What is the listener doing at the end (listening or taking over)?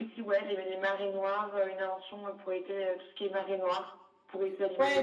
taking over